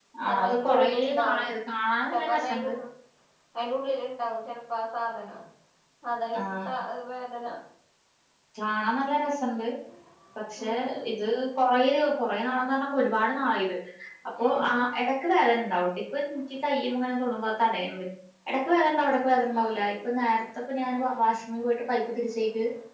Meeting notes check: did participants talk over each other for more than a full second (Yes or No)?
Yes